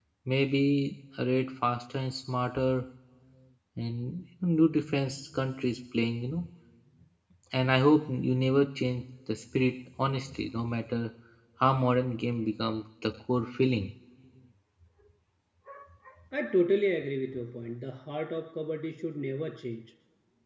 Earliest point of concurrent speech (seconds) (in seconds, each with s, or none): none